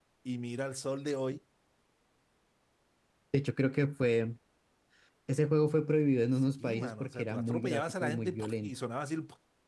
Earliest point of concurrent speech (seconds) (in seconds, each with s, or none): 6.3 s